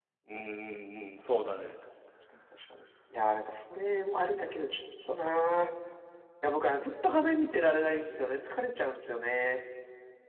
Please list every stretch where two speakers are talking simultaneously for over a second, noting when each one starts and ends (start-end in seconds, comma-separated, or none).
none